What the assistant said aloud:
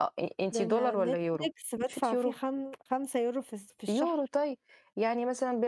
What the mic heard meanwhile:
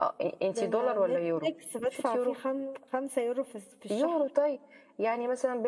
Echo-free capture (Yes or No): No